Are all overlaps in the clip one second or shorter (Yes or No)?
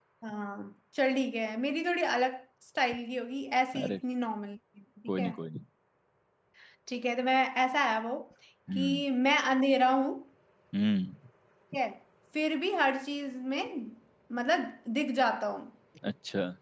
Yes